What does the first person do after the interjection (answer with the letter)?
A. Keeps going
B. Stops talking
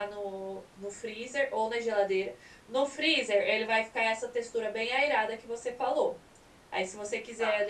A